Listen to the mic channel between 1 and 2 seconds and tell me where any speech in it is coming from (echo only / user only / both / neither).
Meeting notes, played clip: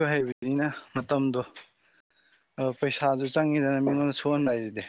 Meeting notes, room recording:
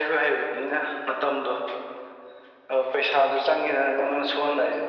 echo only